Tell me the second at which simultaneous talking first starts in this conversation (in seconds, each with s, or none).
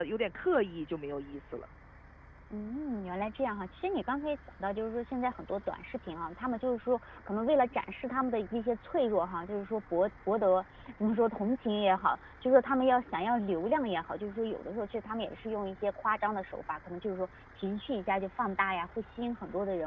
none